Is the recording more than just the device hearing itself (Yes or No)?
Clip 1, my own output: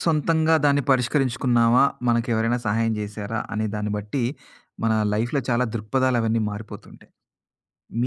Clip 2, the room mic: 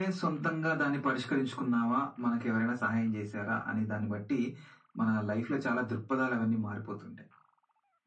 No